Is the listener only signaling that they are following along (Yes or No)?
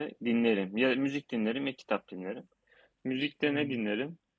Yes